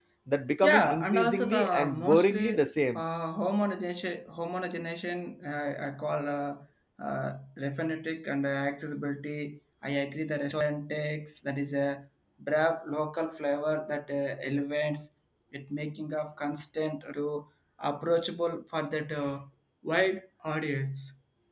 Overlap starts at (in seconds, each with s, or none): 0.6 s